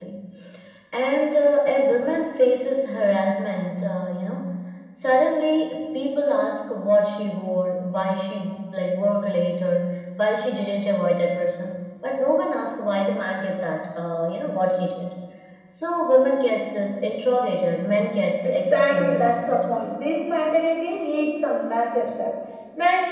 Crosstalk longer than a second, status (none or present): present